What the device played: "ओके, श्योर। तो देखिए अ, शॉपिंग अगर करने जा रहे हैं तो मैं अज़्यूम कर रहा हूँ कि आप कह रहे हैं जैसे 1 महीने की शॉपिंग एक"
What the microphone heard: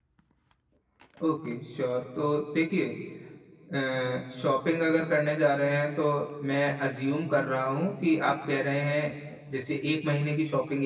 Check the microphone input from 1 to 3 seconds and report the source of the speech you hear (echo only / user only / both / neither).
echo only